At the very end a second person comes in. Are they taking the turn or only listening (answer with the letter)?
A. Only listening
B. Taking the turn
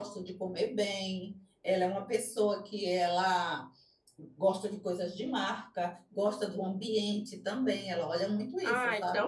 B